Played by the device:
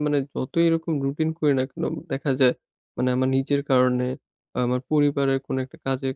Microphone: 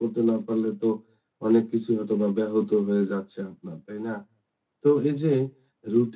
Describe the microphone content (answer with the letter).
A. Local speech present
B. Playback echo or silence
A